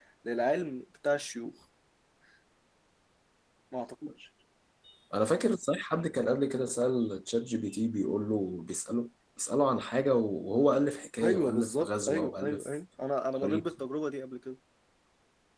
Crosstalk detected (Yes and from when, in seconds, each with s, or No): Yes, from 11.2 s